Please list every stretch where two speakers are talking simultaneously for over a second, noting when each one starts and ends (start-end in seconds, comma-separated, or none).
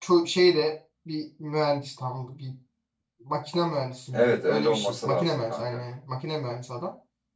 4.1-5.6